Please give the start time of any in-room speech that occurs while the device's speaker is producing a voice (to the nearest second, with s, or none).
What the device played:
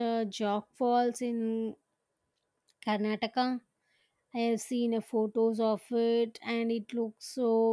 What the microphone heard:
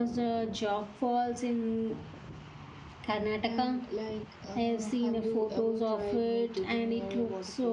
3 s